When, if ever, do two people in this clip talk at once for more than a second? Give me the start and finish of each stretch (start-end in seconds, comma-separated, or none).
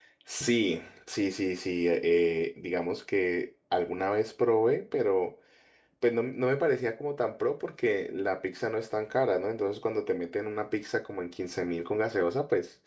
none